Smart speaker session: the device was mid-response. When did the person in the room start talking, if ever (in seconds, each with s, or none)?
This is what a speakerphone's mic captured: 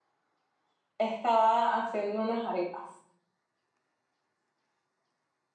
1.0 s